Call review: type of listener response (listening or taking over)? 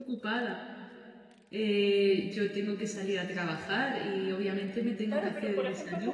taking over